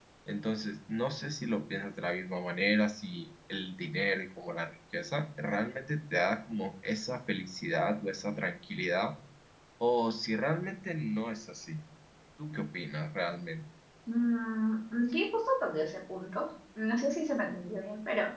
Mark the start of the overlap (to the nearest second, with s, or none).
none